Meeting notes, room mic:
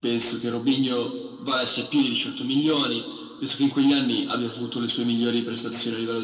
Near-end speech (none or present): none